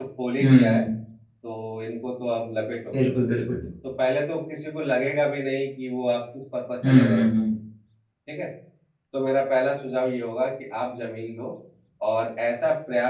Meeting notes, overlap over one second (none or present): none